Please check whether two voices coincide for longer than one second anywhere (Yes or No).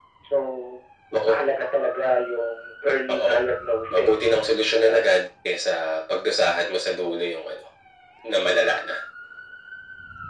Yes